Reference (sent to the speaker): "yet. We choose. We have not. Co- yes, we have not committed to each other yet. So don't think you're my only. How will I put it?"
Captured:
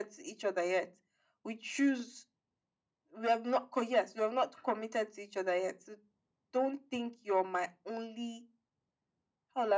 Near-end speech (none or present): none